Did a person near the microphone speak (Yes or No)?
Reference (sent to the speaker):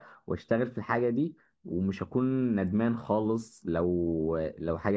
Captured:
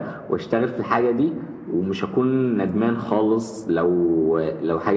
No